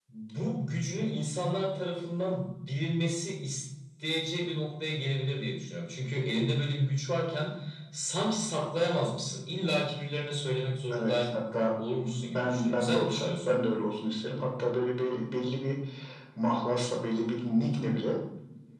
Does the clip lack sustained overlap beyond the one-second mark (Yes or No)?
No